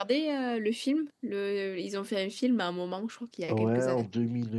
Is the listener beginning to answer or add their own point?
Yes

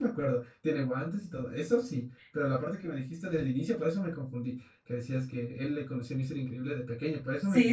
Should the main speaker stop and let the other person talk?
Yes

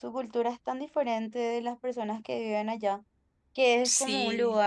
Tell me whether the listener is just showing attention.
Yes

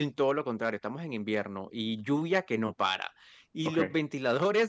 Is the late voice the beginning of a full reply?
No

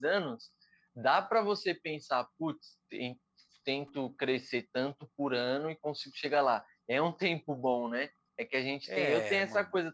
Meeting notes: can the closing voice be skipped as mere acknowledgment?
Yes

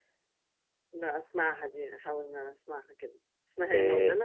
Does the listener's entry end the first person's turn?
Yes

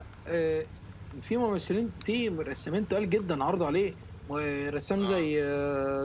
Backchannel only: Yes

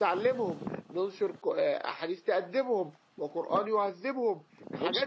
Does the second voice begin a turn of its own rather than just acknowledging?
Yes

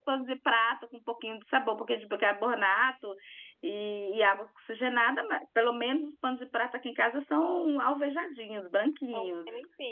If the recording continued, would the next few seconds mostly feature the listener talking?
Yes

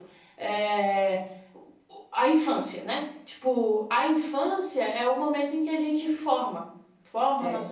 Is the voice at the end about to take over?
No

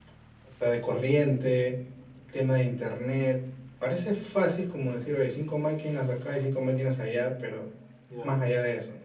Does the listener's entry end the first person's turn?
No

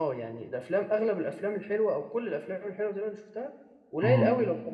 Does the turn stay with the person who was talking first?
Yes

